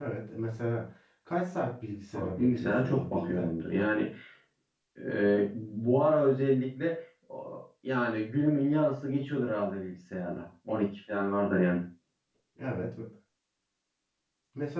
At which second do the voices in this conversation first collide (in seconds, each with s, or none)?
2.1 s